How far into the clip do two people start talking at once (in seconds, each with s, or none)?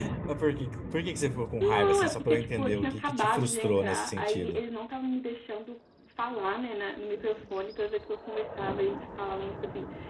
1.6 s